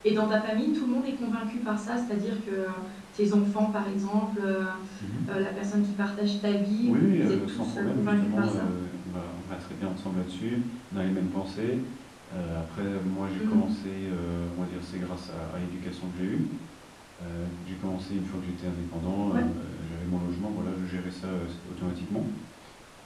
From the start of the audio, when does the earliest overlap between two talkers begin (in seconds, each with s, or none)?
6.8 s